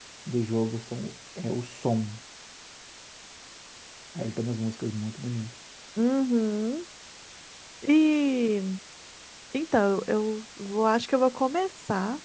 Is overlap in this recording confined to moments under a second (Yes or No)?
Yes